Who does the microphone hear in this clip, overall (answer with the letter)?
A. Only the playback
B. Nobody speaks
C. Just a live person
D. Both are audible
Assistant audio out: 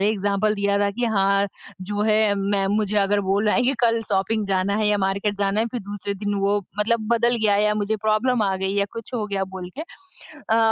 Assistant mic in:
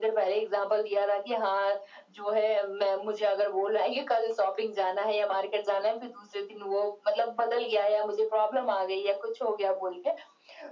A